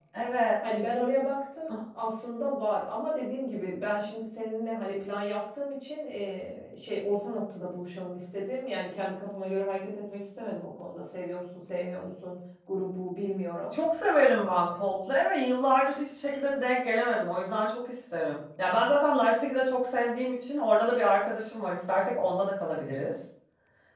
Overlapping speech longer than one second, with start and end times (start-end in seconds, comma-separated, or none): none